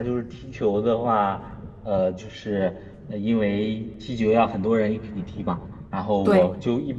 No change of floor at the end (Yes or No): Yes